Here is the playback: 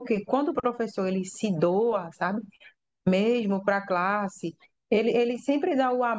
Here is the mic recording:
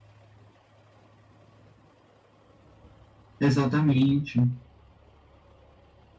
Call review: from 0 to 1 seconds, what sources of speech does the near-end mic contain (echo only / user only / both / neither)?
neither